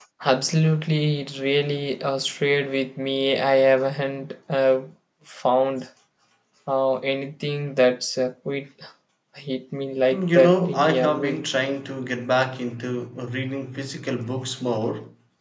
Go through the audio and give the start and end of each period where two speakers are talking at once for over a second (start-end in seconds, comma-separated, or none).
10.1-11.4